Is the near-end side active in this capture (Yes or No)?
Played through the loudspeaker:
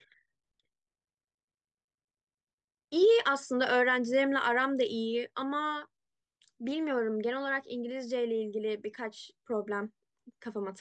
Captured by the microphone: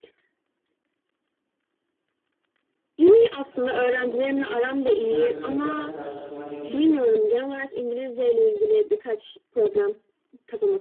Yes